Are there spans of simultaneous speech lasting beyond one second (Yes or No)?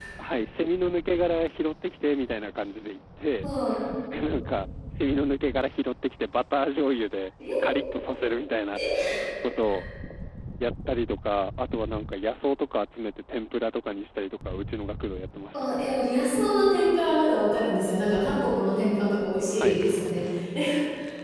No